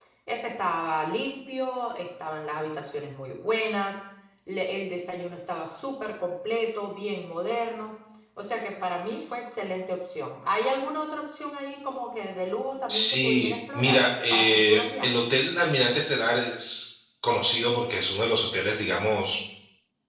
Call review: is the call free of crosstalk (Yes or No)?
No